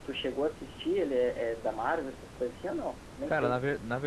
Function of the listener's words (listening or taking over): taking over